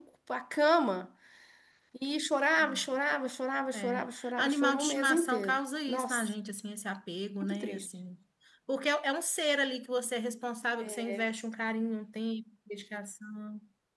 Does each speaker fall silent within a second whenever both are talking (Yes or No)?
No